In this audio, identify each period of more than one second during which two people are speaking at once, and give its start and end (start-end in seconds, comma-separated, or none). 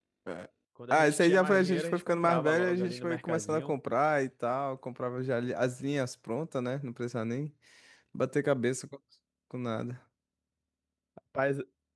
0.9-3.7